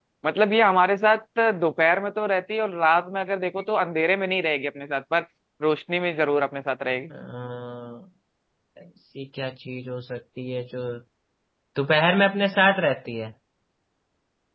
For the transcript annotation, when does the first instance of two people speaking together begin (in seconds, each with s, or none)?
none